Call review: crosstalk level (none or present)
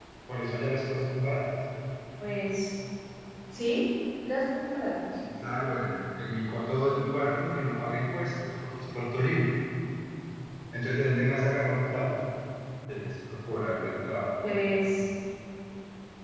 none